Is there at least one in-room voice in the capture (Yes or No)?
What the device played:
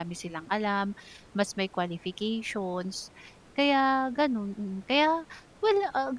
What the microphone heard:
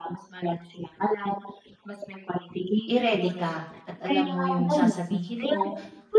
Yes